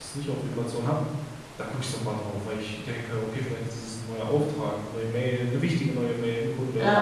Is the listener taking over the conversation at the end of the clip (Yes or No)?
Yes